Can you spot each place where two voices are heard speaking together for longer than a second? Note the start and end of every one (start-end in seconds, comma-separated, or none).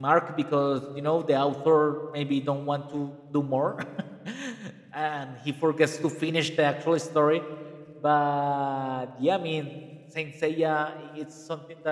none